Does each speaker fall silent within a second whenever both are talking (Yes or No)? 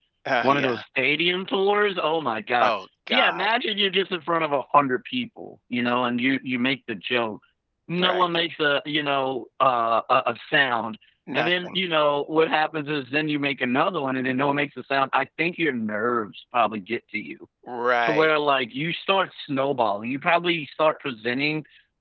Yes